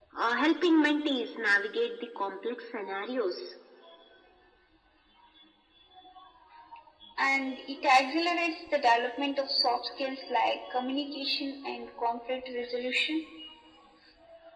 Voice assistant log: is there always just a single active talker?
Yes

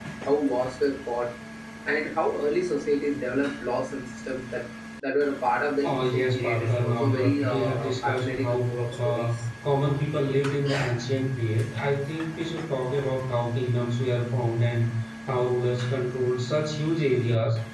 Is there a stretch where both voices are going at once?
Yes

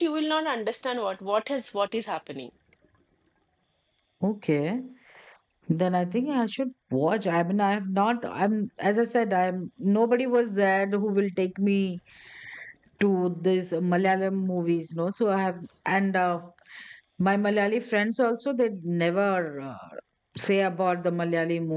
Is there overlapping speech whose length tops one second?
No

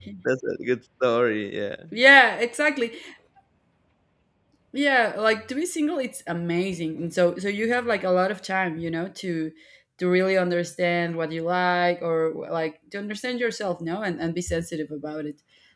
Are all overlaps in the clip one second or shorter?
Yes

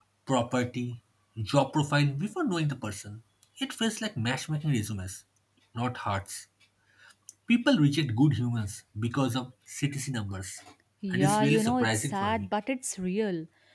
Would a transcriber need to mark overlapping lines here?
Yes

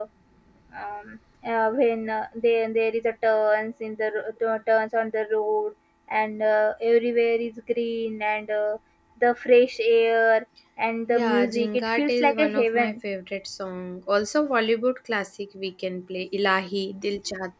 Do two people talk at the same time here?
Yes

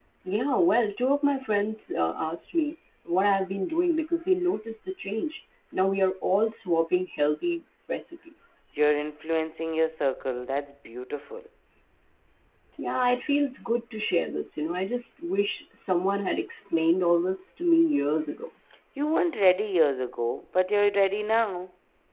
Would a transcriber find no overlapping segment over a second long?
Yes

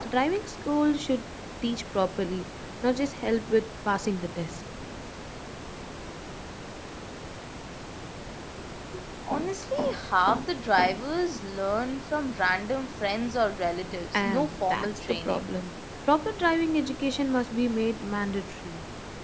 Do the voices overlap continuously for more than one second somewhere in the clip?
Yes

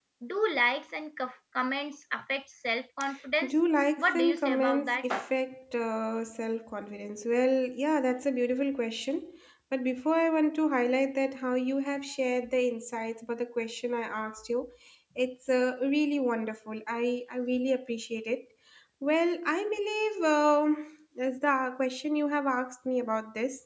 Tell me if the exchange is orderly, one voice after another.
No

